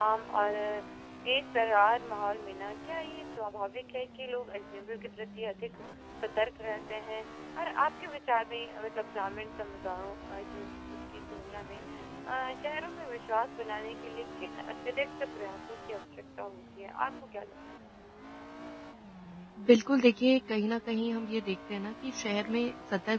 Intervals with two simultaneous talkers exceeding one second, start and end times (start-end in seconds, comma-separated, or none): none